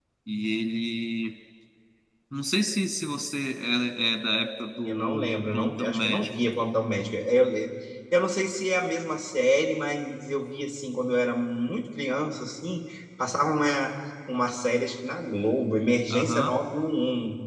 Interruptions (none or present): present